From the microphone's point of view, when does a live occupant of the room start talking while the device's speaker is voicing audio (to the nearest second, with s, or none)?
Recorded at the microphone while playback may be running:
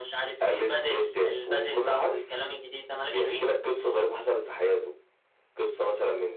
none